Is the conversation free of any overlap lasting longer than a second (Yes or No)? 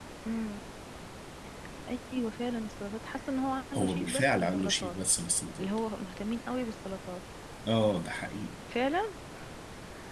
No